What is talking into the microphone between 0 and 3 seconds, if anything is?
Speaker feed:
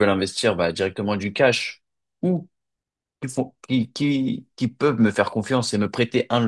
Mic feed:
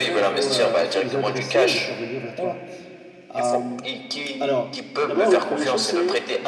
both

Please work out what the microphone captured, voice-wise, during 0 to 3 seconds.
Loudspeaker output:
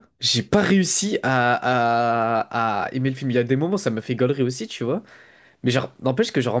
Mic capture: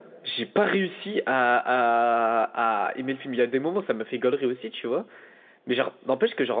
echo only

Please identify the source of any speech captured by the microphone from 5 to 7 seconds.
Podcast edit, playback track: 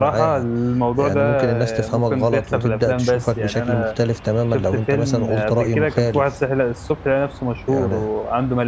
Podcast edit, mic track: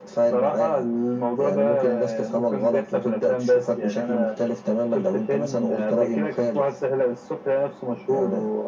echo only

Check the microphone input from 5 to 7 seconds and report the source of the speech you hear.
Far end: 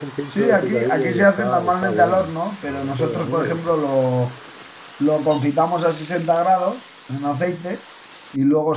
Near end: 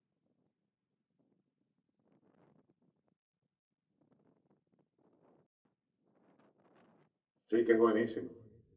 neither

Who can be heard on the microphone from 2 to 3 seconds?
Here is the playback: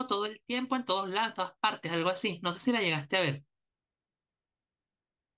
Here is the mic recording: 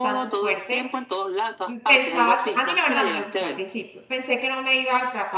both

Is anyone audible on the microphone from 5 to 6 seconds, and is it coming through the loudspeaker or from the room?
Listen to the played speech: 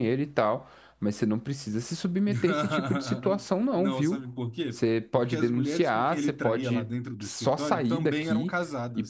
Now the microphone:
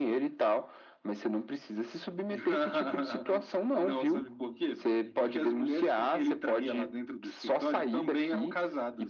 both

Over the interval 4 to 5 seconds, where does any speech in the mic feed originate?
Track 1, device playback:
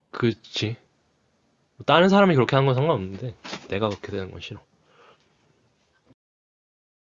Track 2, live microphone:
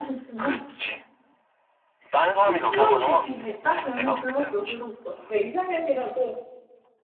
both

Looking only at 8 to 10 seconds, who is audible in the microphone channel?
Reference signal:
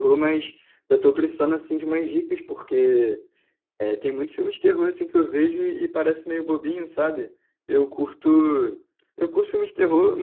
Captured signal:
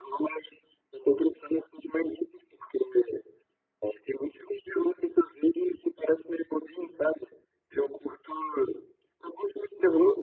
echo only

